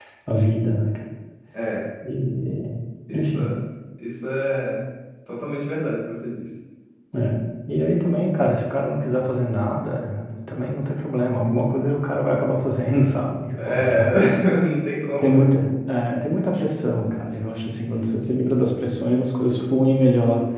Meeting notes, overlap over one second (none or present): none